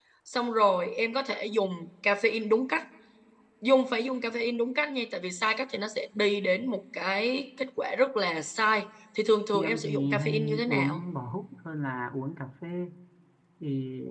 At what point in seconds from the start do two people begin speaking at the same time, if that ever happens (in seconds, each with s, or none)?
9.5 s